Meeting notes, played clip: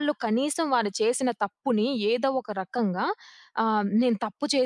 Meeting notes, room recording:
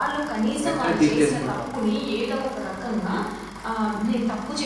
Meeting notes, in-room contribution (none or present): present